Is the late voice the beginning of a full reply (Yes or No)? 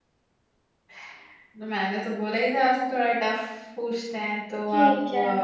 Yes